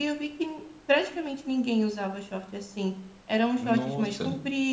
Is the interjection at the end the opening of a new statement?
No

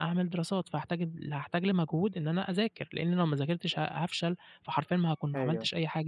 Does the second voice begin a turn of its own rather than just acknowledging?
No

